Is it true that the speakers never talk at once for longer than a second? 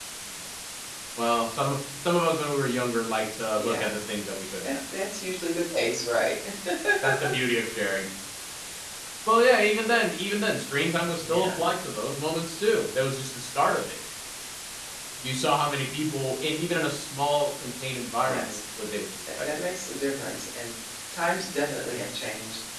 Yes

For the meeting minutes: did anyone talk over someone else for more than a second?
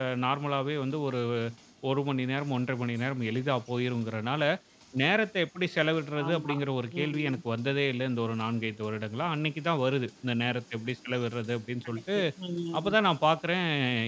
No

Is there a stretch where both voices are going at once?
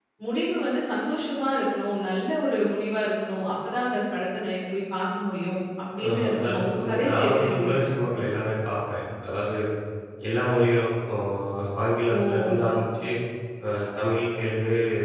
Yes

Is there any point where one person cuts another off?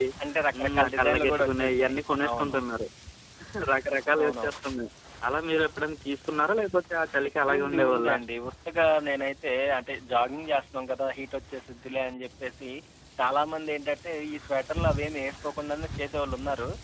Yes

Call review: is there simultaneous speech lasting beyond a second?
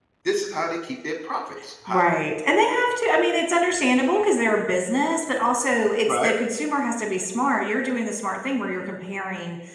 No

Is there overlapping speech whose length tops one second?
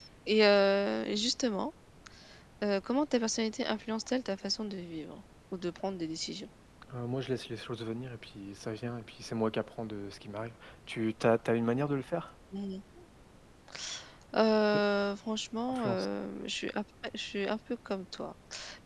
No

